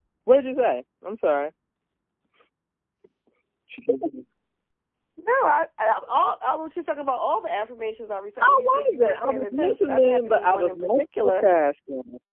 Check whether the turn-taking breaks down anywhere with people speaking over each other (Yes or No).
Yes